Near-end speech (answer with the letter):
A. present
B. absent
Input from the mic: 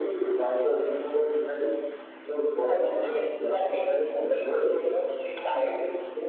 B